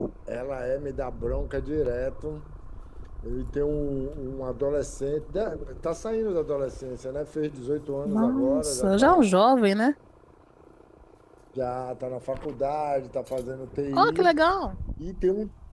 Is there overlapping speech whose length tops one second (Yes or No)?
Yes